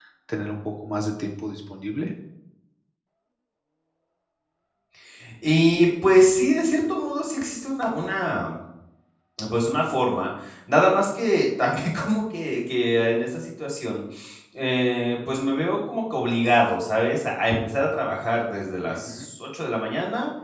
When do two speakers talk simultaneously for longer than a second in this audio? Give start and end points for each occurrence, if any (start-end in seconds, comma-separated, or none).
none